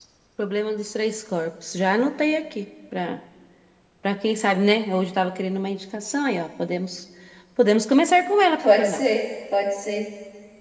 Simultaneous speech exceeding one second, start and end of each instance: none

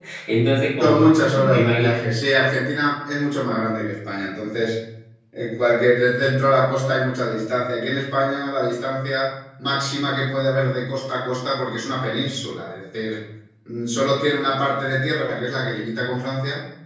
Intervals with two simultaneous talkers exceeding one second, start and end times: 0.8-2.2

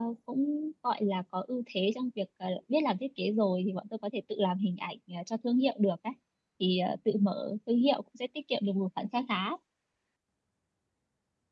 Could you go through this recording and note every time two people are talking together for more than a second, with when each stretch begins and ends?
none

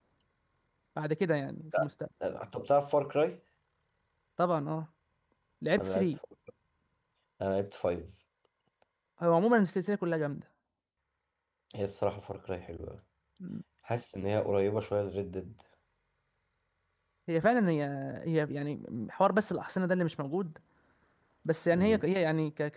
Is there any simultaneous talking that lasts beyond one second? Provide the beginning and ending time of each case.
none

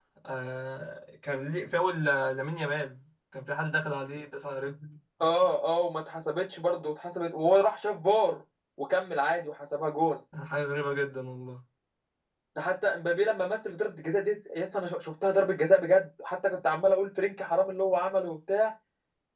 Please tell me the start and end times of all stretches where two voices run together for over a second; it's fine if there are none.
none

